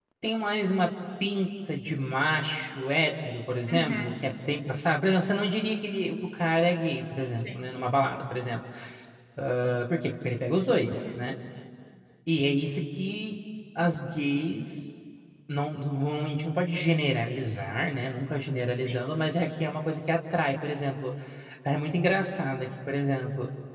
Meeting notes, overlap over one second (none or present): none